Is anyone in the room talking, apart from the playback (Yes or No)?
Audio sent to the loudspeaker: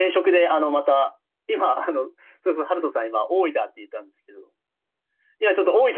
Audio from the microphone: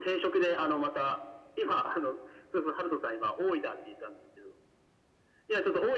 No